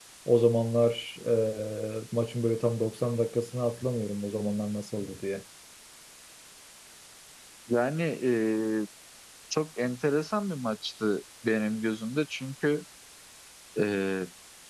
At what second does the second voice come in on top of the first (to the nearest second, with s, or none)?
none